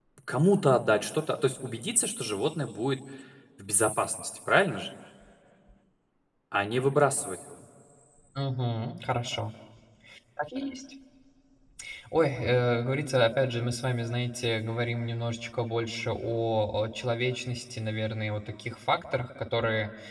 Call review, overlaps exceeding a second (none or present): none